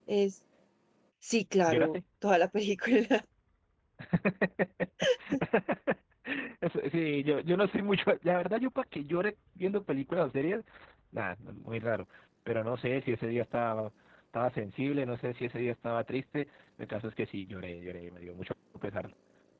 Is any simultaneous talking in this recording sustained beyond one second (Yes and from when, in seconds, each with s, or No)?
No